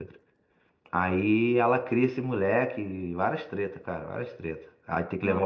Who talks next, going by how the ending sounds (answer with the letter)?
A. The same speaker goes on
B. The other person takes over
A